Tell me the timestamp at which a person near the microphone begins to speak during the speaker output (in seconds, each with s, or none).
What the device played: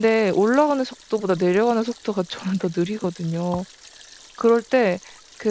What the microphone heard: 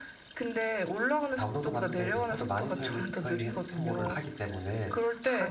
1.4 s